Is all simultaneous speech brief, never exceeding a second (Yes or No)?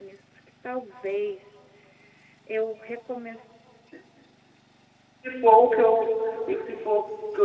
Yes